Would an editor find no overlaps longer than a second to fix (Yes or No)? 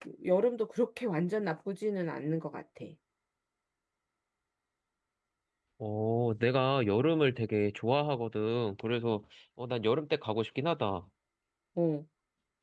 Yes